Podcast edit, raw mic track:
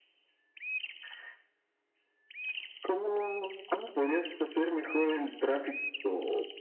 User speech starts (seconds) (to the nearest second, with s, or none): none